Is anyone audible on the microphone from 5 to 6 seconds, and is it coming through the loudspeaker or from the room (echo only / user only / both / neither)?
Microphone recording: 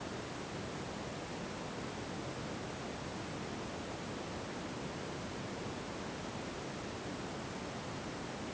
neither